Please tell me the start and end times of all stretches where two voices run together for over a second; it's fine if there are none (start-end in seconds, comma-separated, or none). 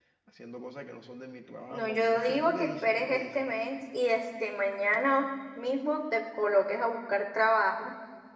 1.7-3.2